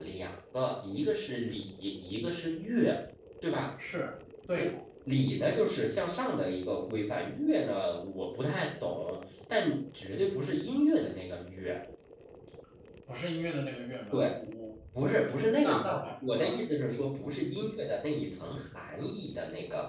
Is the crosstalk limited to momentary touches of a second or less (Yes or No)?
Yes